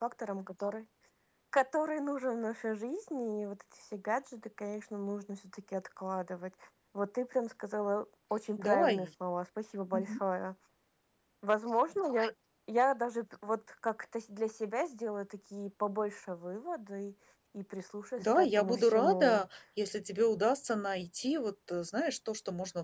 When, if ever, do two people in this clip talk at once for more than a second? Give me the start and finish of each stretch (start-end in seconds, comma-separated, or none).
18.2-19.4